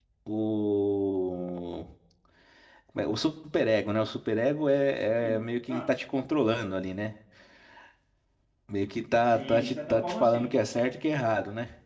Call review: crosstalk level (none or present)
present